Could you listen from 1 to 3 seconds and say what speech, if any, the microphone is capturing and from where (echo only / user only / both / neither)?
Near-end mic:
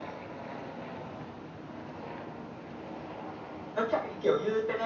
neither